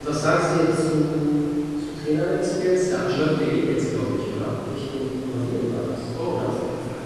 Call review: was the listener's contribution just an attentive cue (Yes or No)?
No